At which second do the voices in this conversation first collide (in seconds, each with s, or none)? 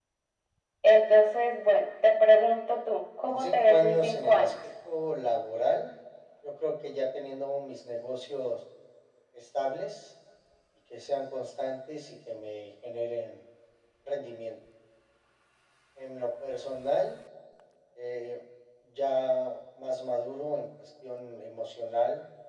3.2 s